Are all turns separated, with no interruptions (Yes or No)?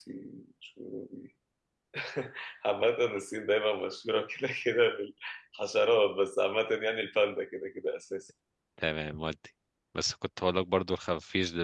Yes